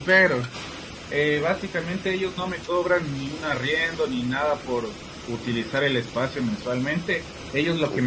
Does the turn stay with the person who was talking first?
Yes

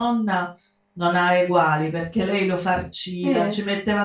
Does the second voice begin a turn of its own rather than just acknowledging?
No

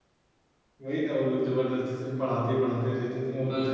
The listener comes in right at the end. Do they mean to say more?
Yes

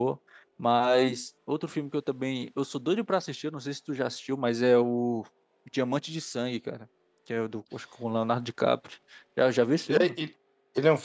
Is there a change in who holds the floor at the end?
Yes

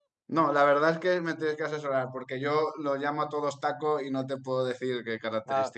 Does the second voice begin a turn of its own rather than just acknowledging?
Yes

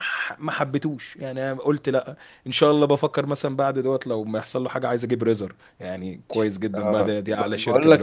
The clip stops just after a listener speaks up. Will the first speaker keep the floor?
No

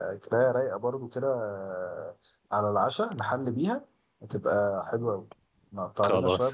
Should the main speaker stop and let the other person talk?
No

